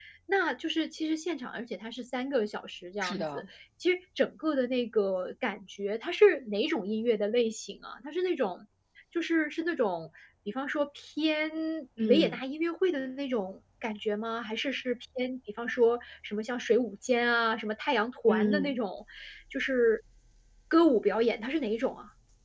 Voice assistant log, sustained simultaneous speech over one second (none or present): none